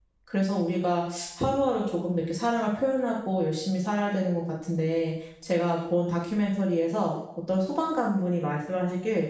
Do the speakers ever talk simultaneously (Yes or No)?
No